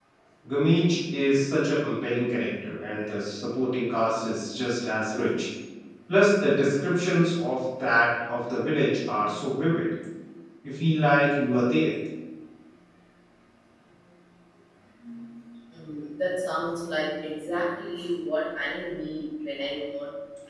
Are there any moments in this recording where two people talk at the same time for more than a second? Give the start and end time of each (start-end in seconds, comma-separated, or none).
none